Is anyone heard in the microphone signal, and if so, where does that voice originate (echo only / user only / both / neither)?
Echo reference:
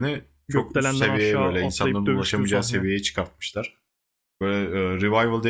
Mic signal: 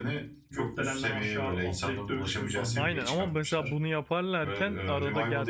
both